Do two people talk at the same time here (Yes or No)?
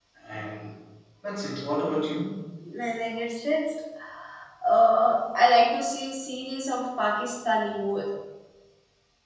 No